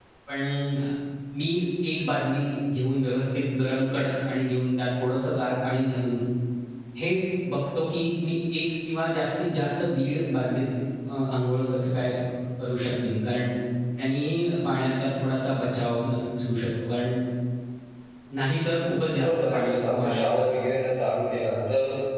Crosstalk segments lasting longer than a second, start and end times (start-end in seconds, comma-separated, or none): 18.9-20.4